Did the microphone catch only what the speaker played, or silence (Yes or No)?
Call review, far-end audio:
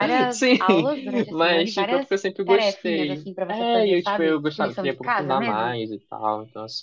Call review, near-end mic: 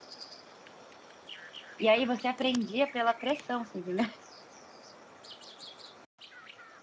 No